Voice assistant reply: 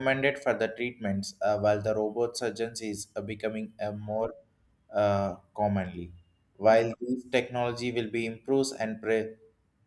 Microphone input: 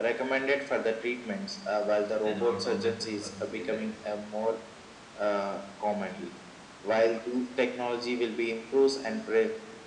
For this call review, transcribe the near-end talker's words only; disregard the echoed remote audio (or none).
and automated assembly lines.